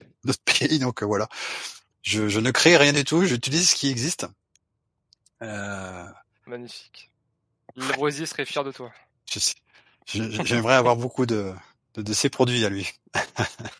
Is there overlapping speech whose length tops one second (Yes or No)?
No